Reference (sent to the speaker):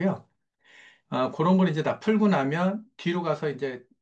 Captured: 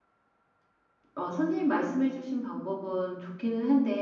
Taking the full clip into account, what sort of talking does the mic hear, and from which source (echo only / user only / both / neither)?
user only